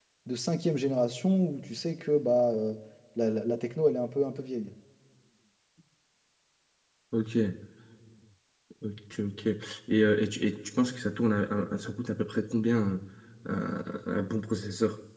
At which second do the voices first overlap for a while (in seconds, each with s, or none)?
none